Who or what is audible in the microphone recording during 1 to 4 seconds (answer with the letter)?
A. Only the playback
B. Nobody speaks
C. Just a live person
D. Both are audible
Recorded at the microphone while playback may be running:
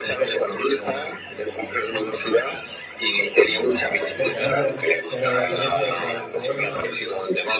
D